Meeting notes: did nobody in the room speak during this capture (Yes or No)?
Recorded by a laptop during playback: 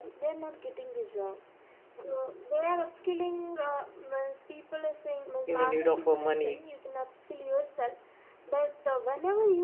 No